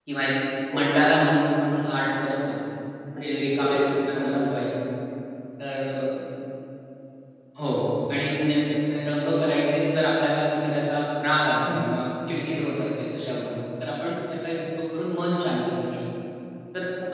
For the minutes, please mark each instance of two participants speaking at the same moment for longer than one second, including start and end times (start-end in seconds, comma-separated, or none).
3.2-4.4